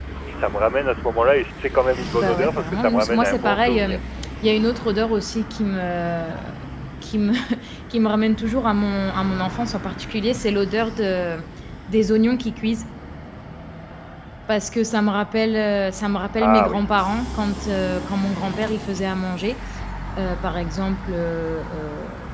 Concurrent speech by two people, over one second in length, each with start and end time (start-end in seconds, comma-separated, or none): 2.2-4.0